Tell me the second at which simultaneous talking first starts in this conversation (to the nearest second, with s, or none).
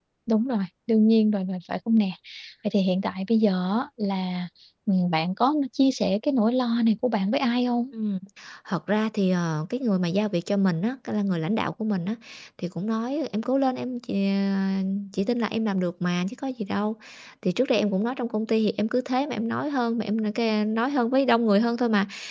none